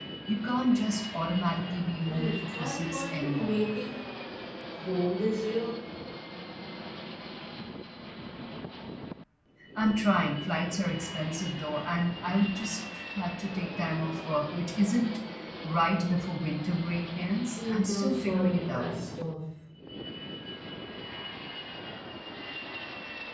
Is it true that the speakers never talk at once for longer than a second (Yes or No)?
No